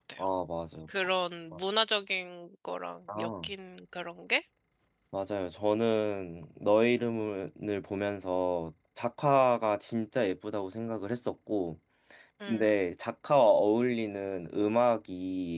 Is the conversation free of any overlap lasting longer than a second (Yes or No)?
Yes